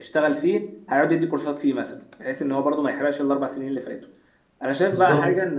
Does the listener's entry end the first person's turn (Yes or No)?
No